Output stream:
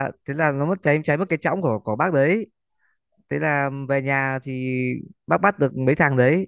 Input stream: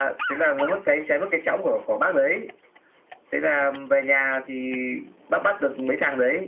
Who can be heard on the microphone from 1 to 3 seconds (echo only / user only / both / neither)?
echo only